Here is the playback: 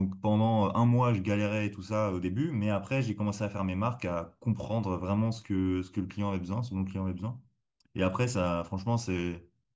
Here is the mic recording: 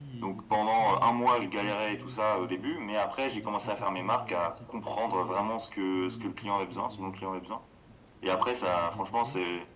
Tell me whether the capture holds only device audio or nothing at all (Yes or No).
No